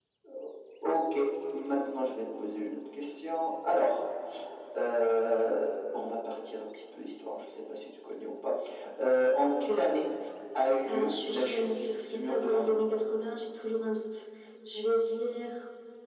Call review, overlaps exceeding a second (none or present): present